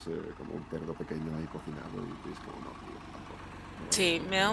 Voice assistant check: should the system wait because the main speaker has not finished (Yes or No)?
No